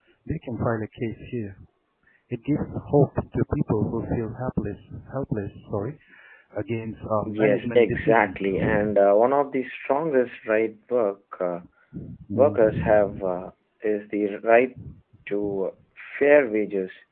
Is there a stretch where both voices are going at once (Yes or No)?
Yes